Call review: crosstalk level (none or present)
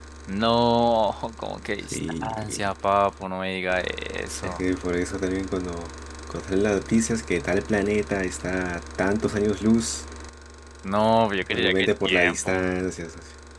present